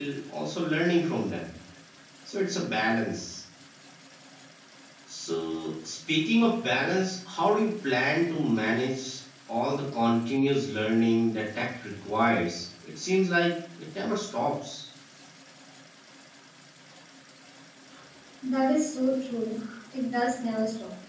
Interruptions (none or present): none